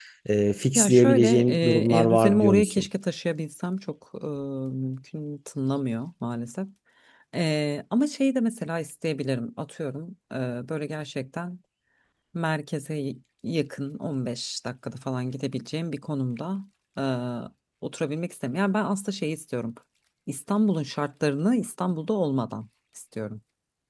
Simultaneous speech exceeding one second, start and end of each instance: 0.8-2.9

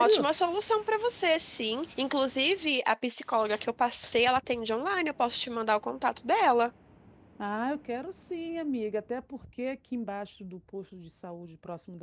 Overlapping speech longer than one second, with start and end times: none

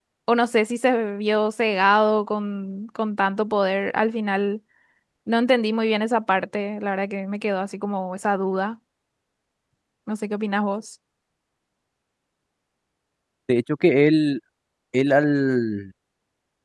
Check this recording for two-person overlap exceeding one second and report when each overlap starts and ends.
none

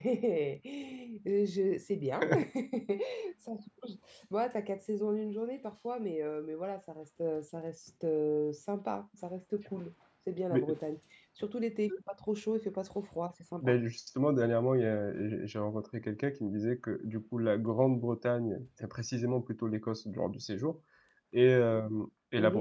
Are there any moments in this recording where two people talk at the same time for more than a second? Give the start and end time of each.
none

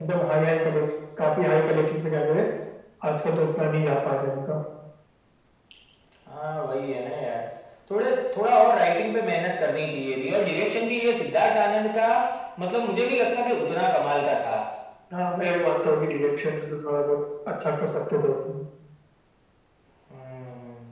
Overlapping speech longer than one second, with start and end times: none

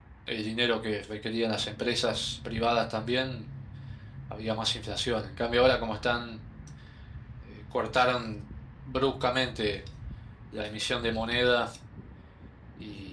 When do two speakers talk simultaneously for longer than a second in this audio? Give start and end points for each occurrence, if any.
none

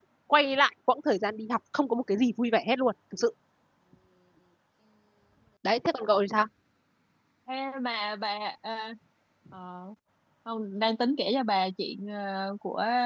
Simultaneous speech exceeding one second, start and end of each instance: none

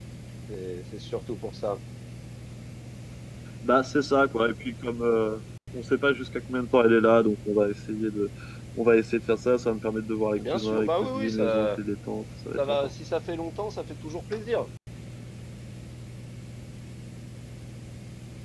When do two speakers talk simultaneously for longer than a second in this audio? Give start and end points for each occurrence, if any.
10.4-11.8

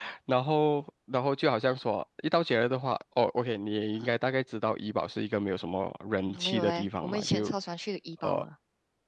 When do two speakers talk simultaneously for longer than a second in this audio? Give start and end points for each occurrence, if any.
6.2-7.5

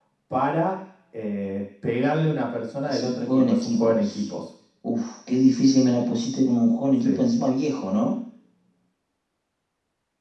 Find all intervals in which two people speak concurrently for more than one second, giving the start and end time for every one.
2.9-4.3

